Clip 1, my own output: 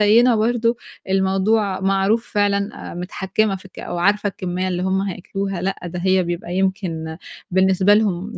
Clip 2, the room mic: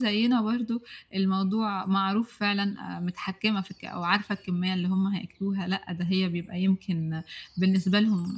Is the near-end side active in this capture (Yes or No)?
No